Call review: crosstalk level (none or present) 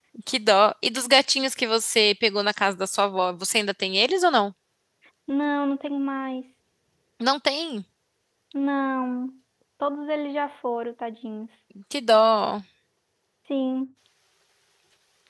none